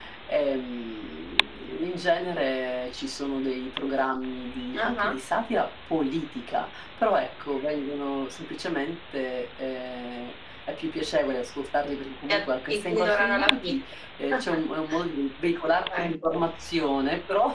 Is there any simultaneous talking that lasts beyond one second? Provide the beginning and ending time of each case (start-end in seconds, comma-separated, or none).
12.3-13.7